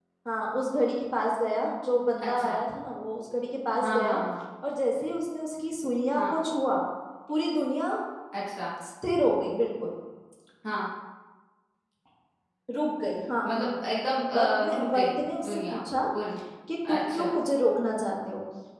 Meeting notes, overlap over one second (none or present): present